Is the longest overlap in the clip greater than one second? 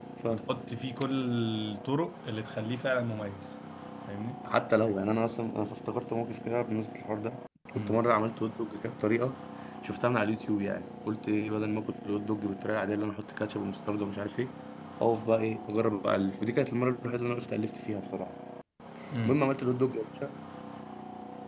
No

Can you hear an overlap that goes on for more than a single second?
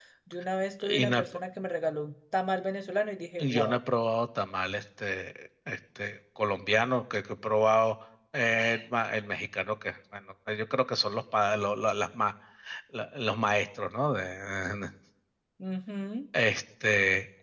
No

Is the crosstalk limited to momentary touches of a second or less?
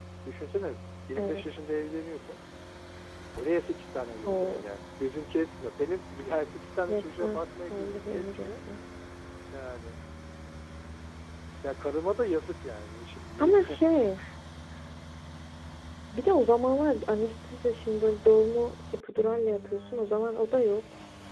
No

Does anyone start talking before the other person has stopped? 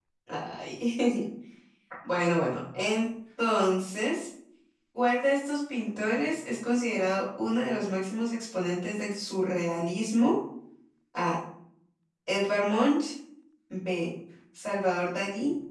No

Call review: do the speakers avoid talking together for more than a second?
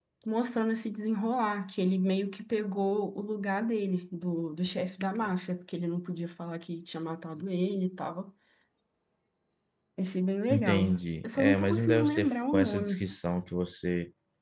No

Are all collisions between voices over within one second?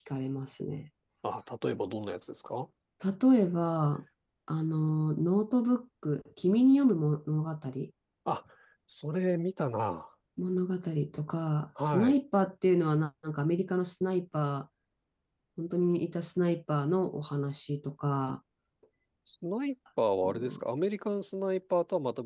Yes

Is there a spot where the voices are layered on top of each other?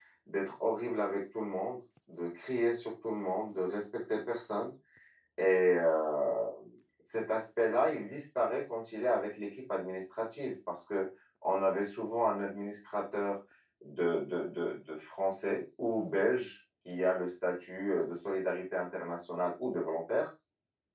No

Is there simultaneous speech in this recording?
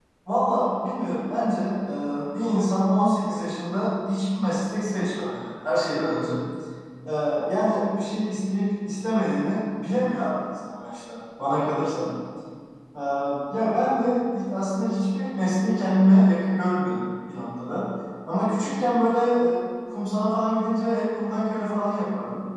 No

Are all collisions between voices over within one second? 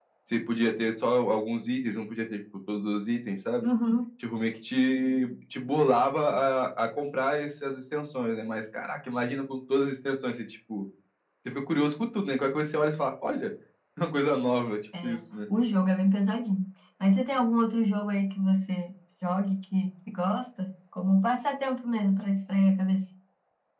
Yes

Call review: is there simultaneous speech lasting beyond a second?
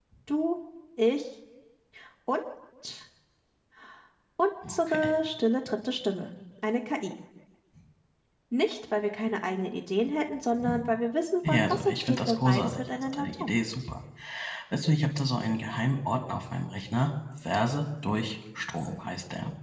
Yes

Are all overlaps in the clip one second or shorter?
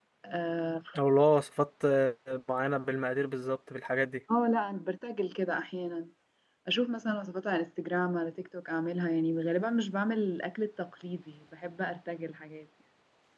Yes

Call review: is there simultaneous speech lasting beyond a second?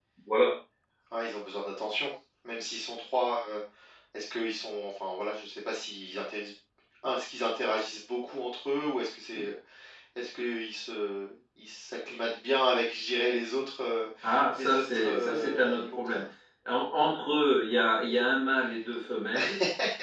Yes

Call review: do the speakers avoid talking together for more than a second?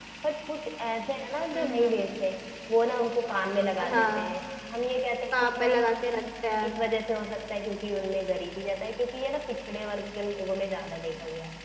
Yes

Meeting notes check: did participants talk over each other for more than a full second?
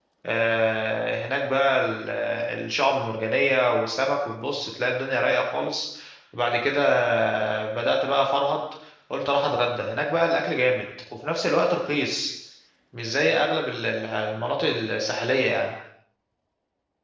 No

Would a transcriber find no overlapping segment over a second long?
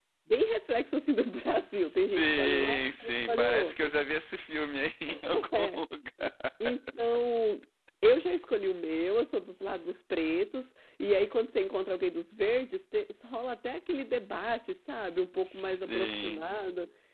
No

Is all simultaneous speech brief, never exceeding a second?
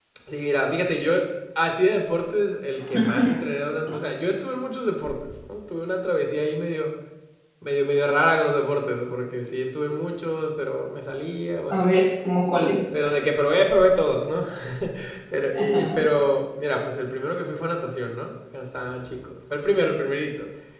Yes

